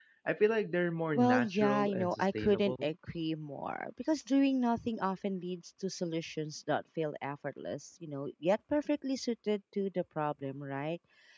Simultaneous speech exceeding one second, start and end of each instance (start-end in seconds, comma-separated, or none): 1.1-2.9